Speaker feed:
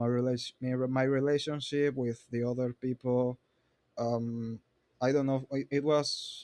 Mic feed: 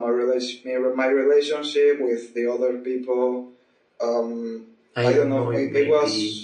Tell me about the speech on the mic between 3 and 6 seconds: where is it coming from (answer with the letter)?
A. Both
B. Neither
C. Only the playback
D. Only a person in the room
A